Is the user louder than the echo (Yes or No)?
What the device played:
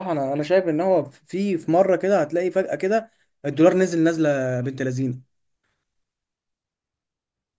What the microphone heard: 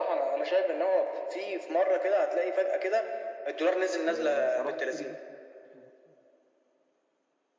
No